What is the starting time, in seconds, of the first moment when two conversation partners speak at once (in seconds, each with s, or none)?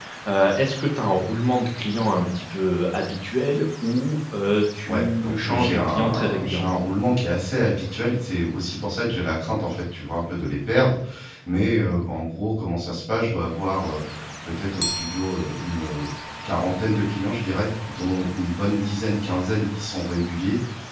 4.8 s